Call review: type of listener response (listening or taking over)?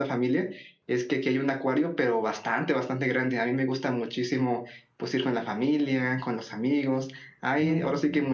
listening